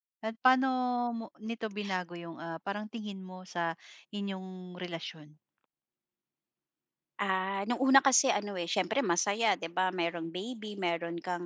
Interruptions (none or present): none